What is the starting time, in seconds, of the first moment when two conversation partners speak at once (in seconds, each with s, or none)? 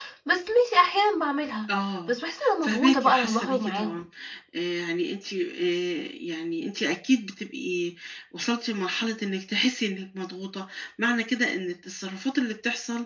2.6 s